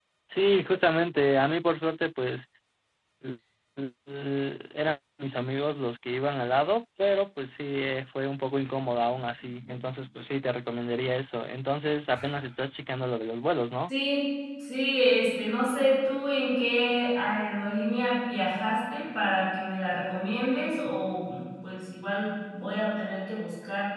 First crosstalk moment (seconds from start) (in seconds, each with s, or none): none